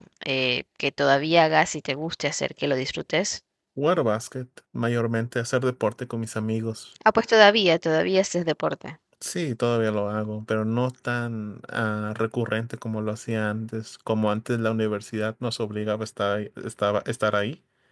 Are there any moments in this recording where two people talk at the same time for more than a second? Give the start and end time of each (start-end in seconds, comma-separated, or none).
none